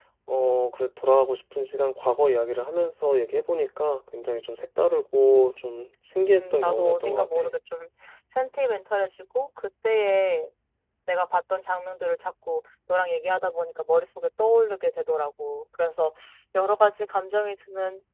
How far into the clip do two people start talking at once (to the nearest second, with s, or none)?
6 s